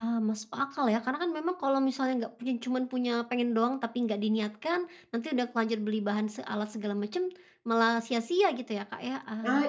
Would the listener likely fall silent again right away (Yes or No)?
No